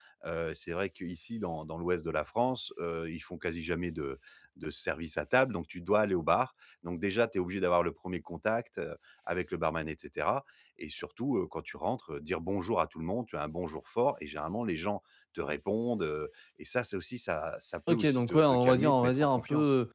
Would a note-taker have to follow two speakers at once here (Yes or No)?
Yes